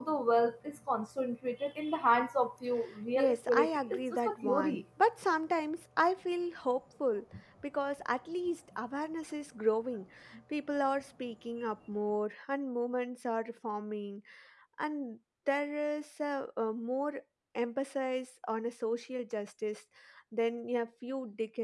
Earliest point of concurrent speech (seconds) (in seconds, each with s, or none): 3.2 s